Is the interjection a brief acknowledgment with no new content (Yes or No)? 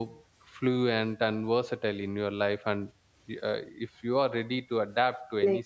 No